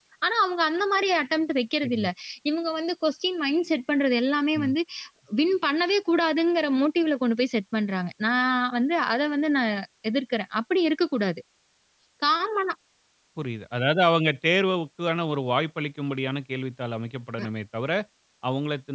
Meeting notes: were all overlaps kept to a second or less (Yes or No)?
Yes